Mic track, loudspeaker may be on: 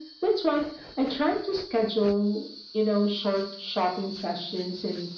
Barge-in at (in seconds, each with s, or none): none